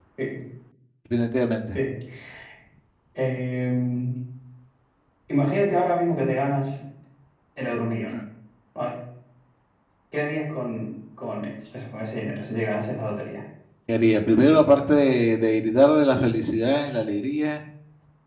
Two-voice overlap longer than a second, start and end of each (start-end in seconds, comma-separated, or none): none